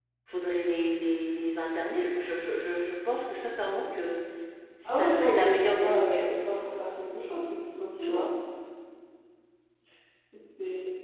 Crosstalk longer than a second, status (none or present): present